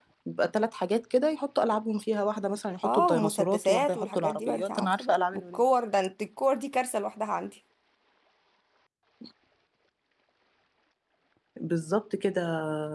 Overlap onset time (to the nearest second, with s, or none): 3 s